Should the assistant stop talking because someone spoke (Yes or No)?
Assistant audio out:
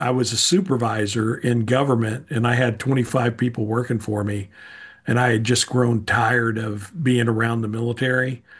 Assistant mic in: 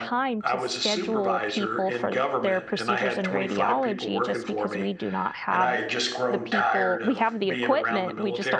Yes